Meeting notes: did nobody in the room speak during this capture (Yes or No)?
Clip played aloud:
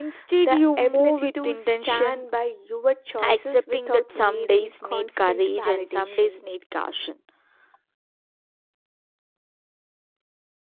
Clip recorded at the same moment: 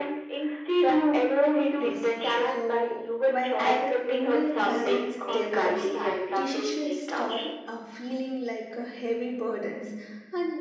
No